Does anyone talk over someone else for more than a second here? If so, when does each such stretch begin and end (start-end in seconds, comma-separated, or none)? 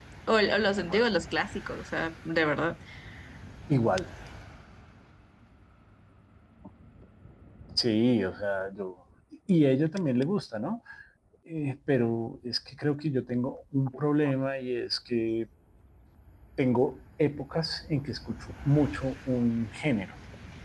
none